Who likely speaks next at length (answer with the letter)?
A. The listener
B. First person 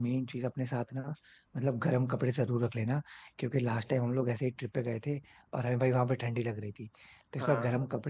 B